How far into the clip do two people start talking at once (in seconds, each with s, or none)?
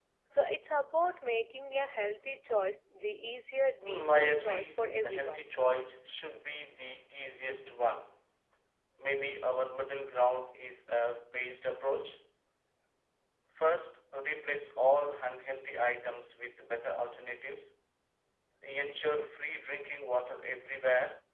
3.8 s